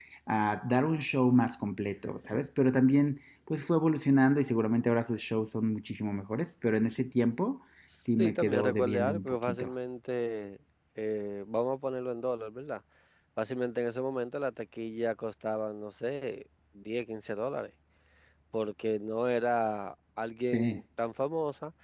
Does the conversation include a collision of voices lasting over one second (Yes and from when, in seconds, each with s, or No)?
Yes, from 8.2 s